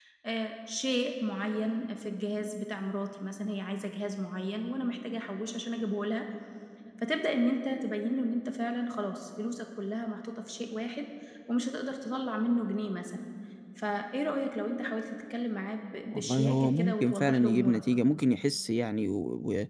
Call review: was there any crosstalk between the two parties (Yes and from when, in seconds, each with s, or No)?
Yes, from 16.1 s